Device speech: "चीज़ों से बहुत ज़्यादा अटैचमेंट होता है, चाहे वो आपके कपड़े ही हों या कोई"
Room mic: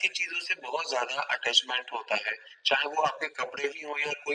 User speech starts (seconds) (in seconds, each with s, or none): none